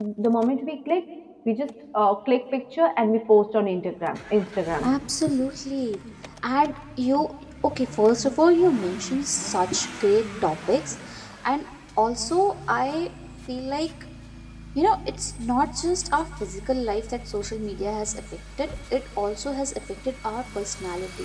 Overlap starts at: none

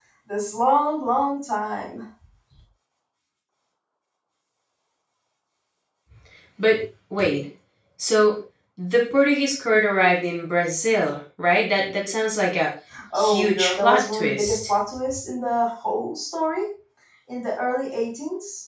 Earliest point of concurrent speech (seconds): 13.1 s

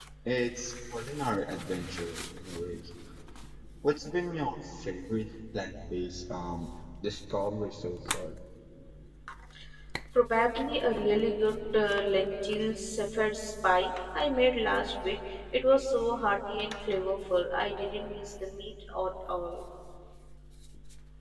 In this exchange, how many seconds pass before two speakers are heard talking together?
none

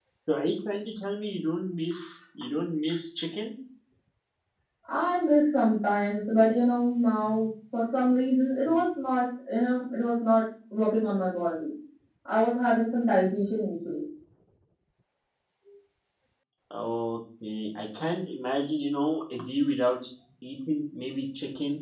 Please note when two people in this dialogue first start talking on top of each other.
none

